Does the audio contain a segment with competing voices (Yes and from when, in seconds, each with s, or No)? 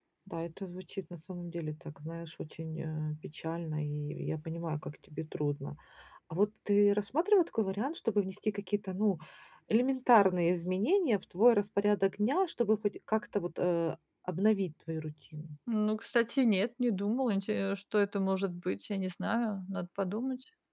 No